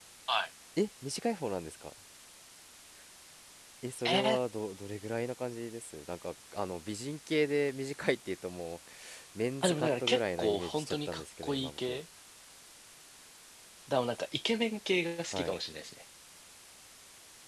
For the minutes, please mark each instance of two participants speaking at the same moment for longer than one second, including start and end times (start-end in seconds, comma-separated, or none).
9.6-12.0